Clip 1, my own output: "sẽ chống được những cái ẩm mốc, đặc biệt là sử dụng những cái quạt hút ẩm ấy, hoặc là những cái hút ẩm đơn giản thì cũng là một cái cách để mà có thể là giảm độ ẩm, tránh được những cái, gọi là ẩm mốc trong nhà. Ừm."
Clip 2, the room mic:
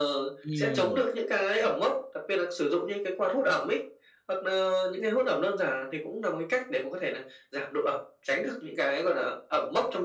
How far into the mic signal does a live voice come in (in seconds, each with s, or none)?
0.4 s